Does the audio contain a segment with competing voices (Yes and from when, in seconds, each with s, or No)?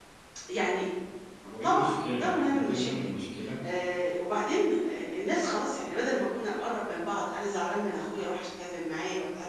Yes, from 1.6 s